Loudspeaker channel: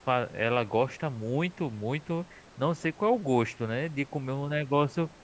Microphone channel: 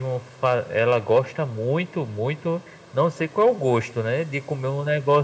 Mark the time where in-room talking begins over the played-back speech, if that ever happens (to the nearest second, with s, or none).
none